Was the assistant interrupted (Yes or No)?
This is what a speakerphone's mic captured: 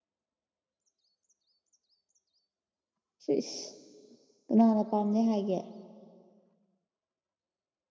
Yes